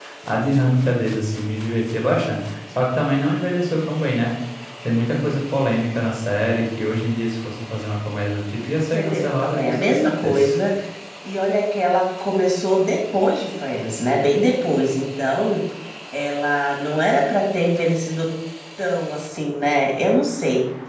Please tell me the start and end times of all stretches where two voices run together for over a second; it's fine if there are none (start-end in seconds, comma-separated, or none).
8.9-10.4